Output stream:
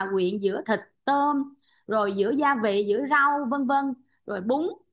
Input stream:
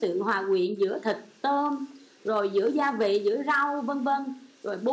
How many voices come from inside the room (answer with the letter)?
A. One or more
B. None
B